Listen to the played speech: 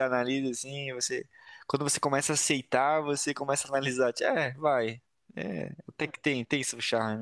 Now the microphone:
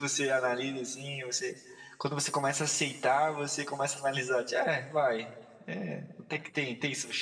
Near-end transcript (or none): none